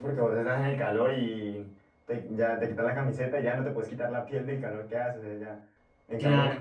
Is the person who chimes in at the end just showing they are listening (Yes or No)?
Yes